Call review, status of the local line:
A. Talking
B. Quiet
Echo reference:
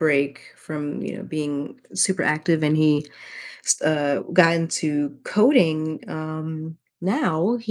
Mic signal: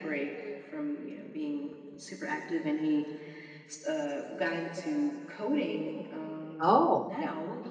A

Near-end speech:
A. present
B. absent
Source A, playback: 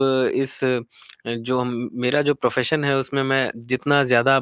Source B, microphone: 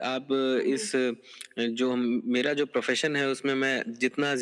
A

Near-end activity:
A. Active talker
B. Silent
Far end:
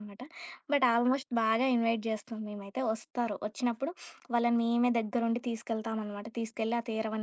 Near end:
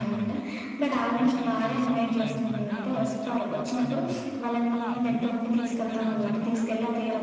A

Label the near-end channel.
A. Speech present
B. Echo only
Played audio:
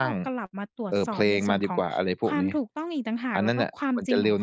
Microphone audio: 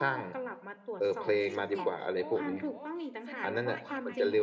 A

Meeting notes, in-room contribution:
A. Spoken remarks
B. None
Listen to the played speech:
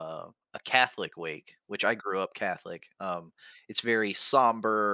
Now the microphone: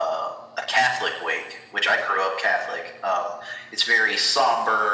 B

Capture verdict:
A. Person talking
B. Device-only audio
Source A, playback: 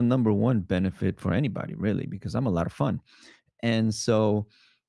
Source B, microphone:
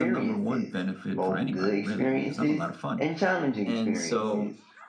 A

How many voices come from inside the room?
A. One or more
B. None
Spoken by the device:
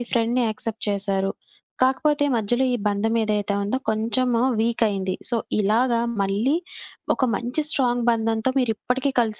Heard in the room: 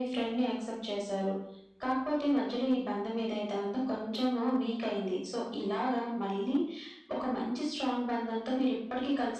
B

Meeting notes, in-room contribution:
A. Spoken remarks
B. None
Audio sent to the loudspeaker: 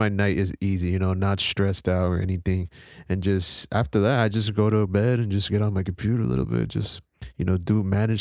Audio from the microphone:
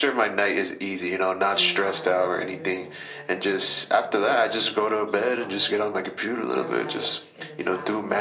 A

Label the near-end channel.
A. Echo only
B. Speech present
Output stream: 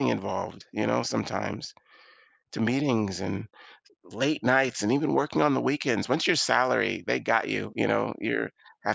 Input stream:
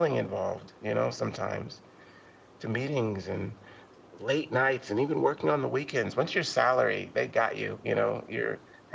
A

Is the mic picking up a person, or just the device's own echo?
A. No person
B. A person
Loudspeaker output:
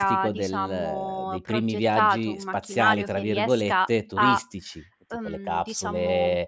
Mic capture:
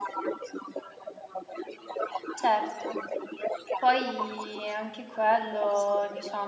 B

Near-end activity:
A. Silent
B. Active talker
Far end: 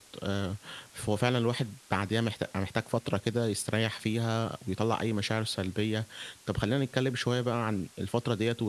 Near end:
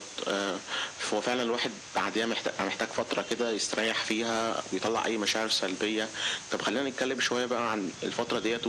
A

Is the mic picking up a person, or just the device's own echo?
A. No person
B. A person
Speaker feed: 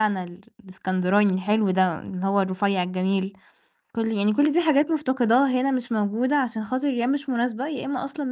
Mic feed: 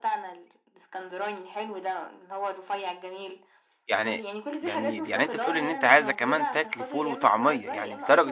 B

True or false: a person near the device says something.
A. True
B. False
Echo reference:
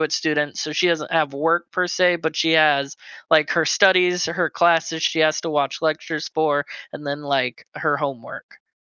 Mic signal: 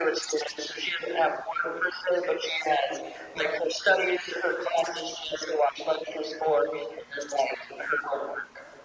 B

